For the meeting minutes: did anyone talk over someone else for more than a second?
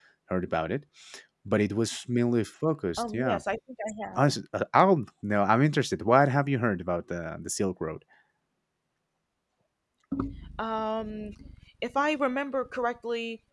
No

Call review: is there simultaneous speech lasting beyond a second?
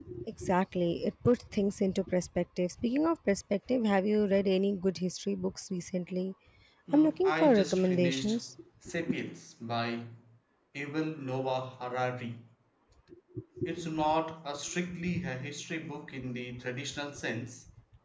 Yes, from 6.9 s

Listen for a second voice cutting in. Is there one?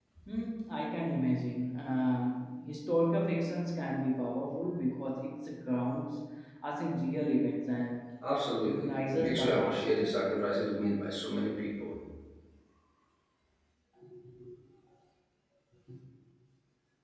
Yes, from 8.6 s

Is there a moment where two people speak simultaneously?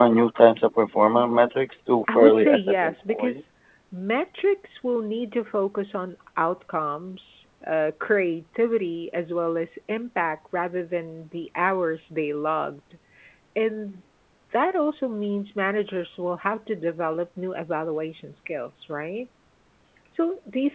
Yes, from 2.1 s

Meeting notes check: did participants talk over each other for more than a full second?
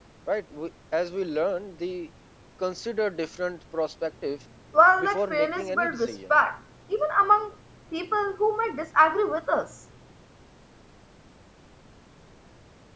Yes, from 5.0 s

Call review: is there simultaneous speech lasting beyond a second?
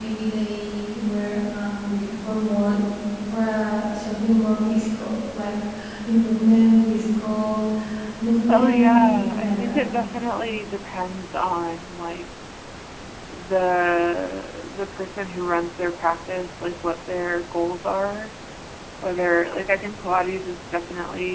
Yes, from 8.5 s

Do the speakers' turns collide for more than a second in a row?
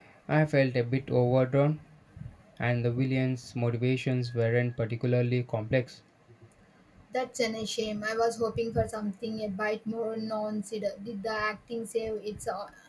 No

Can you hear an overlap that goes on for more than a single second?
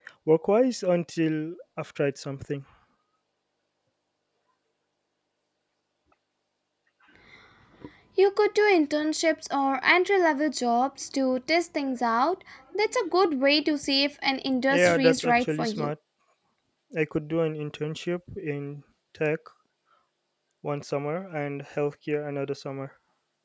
Yes, from 14.7 s

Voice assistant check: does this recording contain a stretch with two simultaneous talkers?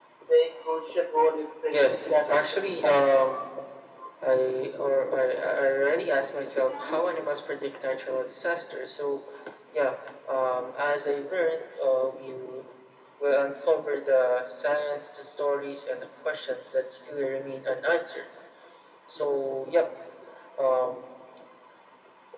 Yes, from 1.7 s

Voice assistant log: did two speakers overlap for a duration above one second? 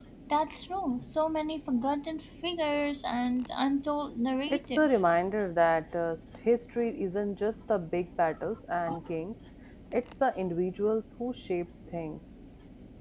No

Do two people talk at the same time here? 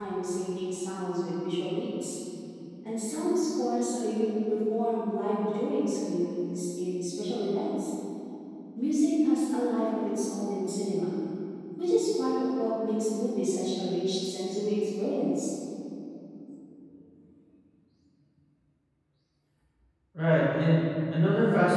No

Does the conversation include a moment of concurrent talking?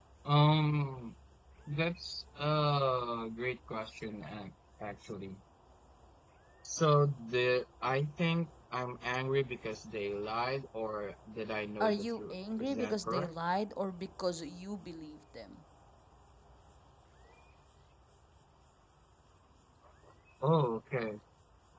Yes, from 11.8 s

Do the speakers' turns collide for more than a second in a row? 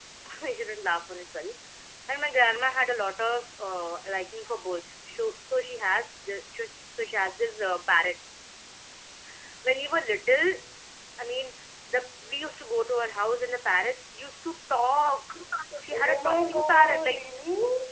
Yes, from 15.9 s

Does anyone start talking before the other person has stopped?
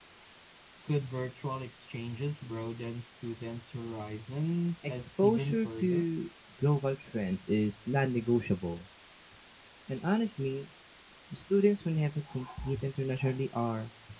Yes, from 4.8 s

